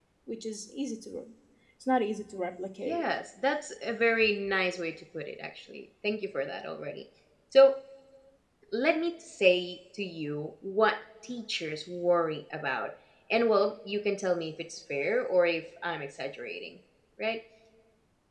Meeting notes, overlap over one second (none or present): none